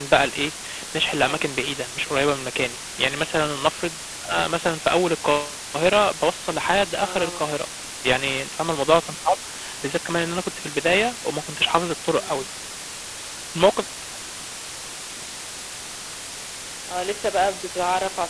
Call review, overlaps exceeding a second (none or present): none